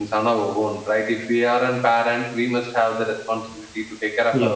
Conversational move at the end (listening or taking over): listening